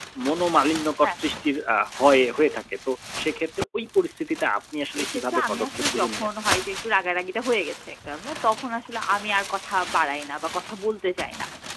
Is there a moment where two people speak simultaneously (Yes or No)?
Yes